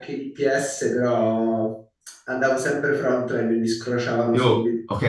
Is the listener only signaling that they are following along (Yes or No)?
No